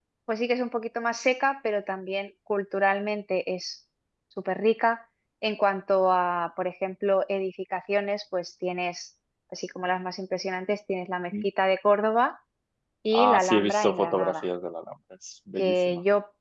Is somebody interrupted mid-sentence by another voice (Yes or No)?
Yes